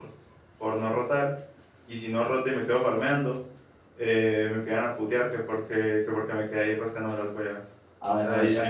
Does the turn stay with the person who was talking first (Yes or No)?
No